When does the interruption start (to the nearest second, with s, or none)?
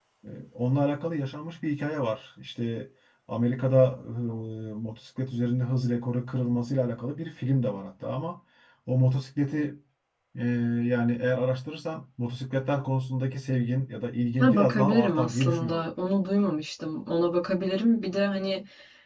14 s